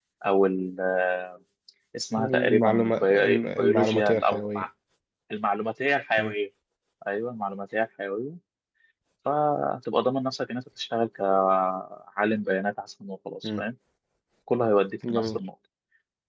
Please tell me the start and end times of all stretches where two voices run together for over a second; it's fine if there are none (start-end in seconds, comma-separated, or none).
2.2-4.7